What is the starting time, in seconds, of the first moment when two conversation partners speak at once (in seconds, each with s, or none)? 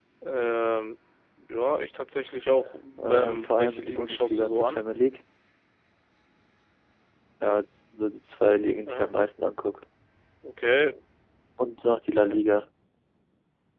3.0 s